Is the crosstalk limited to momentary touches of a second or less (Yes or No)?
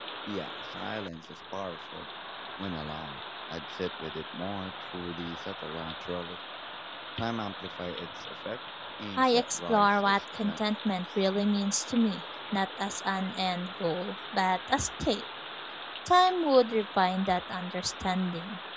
No